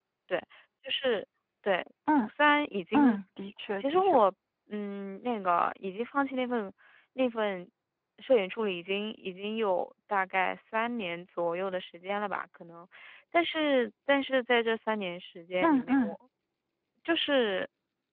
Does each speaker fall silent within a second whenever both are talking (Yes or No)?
No